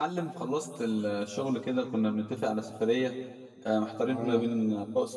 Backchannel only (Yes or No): Yes